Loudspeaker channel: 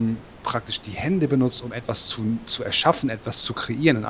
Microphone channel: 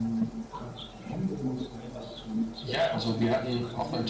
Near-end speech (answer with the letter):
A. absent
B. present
B